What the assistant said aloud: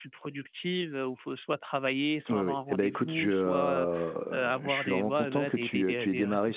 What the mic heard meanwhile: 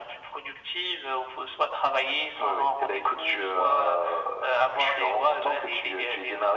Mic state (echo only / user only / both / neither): echo only